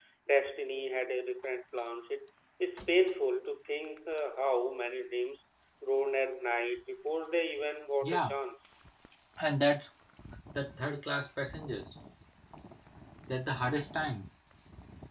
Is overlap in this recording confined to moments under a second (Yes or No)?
Yes